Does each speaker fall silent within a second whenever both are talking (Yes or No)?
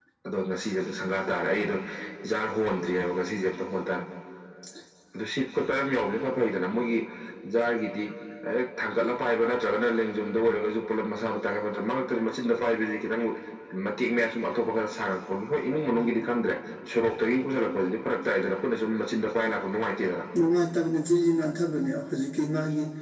Yes